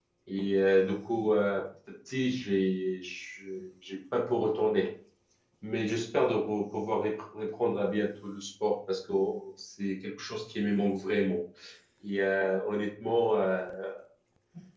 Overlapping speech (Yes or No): No